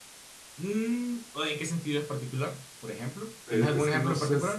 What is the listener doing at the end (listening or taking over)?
taking over